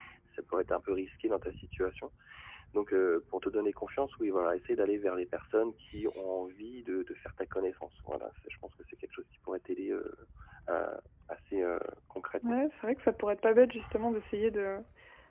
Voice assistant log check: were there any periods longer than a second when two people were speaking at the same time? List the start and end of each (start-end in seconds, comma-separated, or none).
none